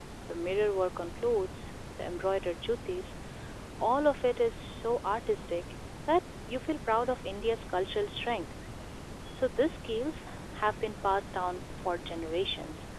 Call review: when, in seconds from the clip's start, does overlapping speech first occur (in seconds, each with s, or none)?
none